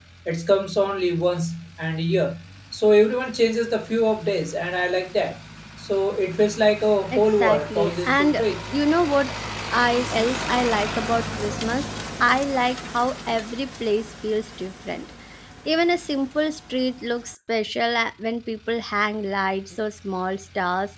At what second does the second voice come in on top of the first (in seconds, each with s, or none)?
7.1 s